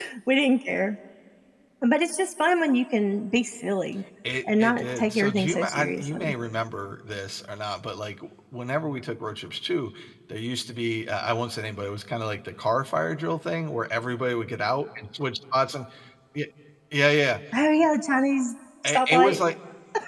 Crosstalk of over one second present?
Yes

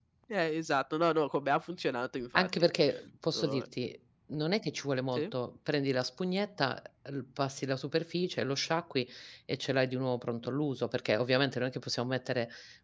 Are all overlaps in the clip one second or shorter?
Yes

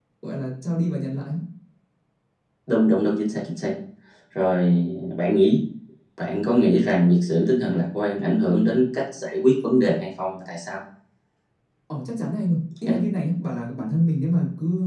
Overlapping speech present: No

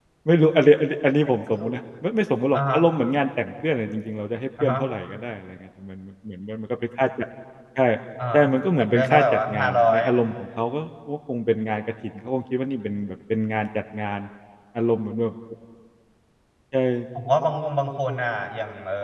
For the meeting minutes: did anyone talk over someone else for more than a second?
Yes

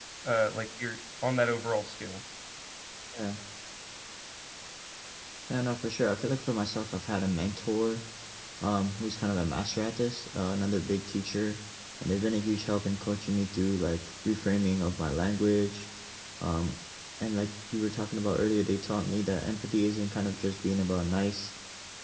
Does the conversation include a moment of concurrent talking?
No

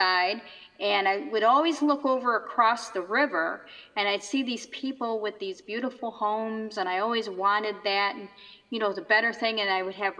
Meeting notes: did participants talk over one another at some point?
No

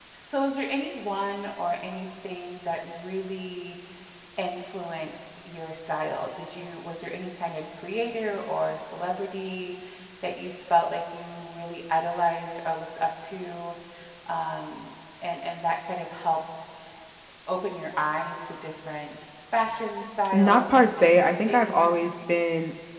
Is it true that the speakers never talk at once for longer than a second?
No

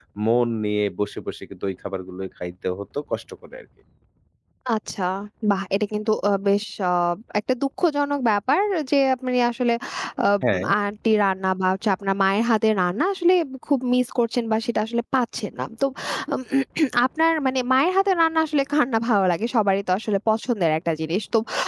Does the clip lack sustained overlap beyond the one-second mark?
Yes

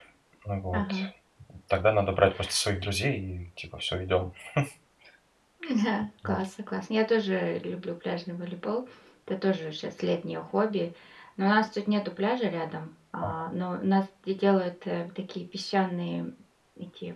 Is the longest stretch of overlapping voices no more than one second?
Yes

